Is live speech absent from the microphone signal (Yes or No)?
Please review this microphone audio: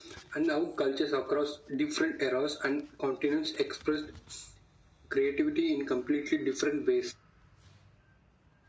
Yes